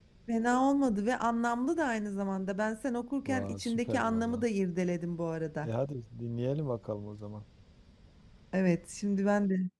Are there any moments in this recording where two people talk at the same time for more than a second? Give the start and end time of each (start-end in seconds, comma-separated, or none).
3.2-4.5